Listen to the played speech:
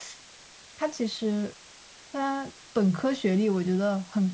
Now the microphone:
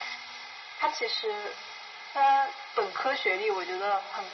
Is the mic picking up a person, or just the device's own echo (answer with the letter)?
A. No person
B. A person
A